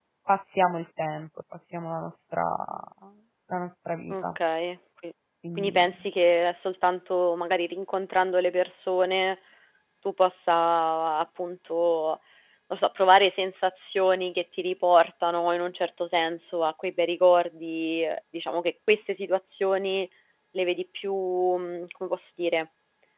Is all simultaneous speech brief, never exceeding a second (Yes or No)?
Yes